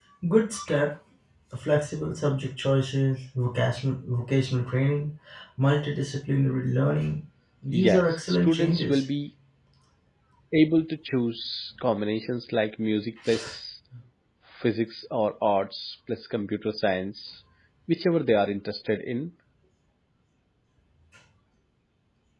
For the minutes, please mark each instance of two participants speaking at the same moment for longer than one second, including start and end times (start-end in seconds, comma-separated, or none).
7.7-9.0